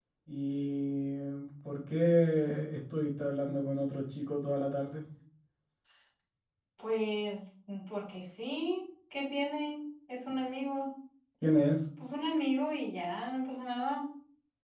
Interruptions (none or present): none